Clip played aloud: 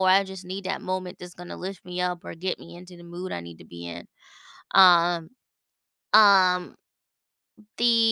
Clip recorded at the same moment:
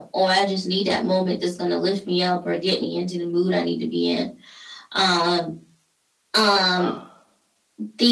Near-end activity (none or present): present